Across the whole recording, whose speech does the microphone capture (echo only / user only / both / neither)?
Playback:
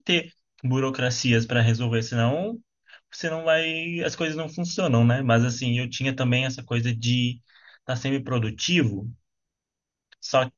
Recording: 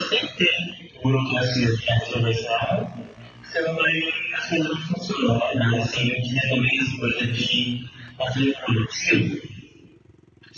echo only